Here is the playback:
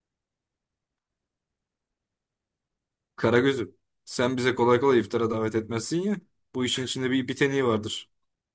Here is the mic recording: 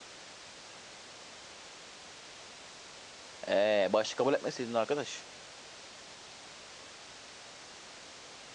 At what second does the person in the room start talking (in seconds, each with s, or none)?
3.5 s